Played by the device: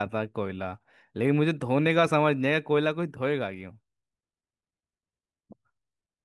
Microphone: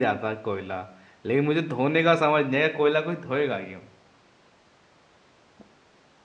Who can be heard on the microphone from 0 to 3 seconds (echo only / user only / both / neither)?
echo only